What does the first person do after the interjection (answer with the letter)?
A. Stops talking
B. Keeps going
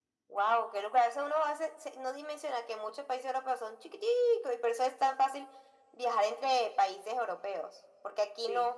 B